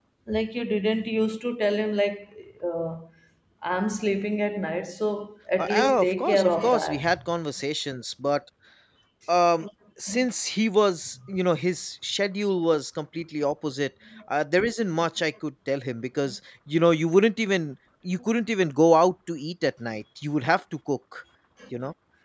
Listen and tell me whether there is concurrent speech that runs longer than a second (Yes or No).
Yes